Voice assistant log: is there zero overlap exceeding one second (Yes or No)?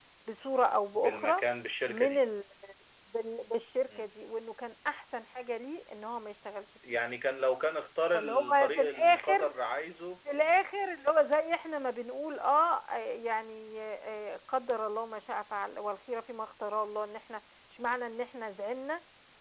No